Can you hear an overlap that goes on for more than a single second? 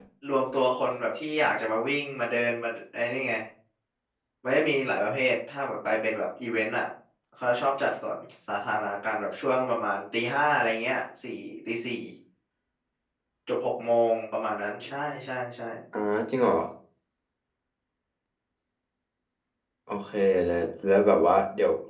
No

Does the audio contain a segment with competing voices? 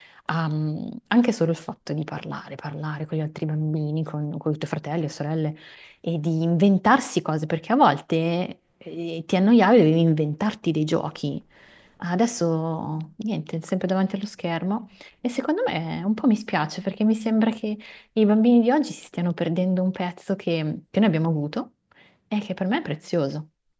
No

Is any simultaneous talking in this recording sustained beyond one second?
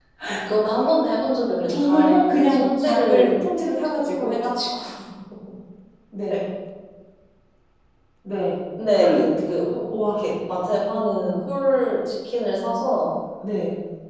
Yes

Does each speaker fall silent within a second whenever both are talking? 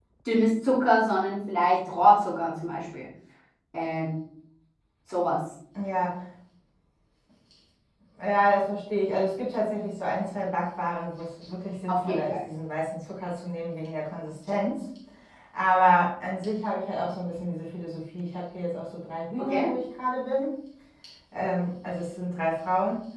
Yes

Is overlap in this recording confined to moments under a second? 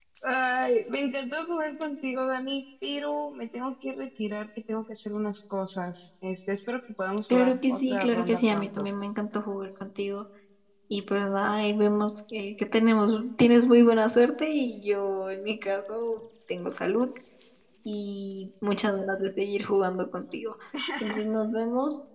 No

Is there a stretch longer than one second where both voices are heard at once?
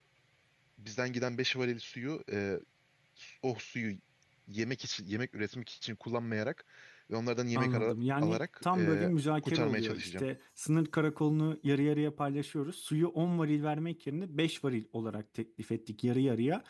Yes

